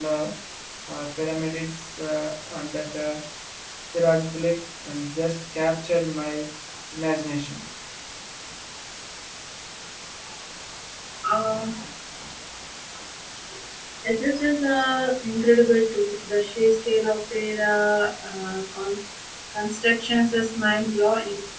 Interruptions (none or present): none